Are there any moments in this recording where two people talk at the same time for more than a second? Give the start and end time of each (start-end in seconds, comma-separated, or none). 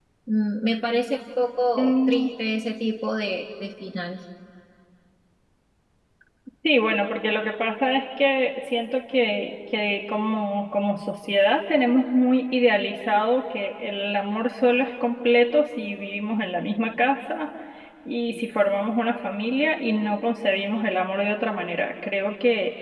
none